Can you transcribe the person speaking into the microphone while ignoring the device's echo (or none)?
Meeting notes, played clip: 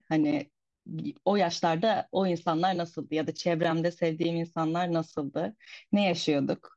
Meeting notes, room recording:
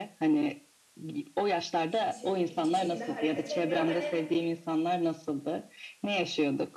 hiç hiçbir şekilde hareket etmiyorum. Hani